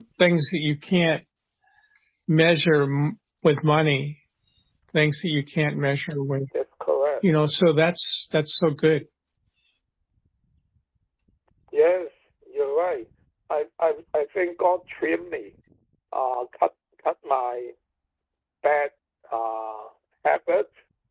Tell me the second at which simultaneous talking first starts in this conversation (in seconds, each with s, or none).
none